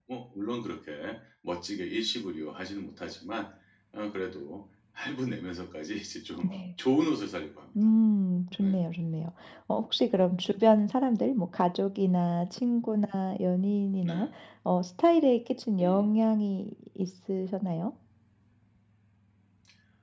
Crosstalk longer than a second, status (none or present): none